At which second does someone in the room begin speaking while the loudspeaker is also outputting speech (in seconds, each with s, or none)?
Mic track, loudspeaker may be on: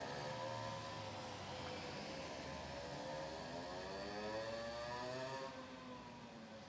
none